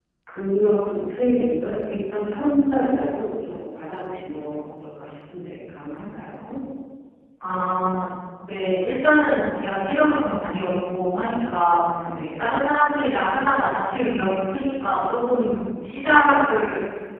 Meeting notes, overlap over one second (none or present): none